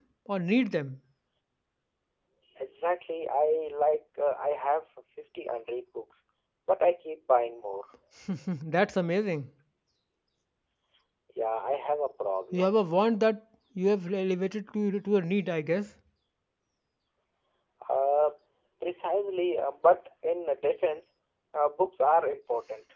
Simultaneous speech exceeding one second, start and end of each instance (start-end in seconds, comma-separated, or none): none